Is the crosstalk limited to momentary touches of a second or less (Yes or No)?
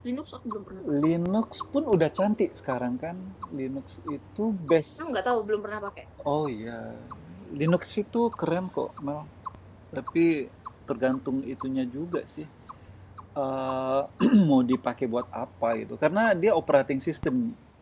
Yes